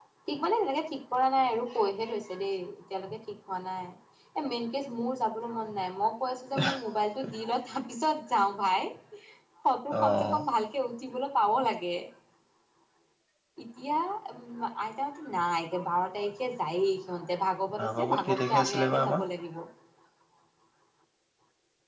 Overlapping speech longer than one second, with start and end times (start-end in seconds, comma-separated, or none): 18.0-19.2